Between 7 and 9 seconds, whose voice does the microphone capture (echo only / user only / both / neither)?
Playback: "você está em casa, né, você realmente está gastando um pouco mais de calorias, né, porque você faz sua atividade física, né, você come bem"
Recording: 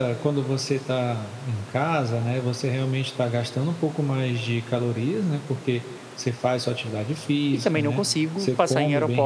both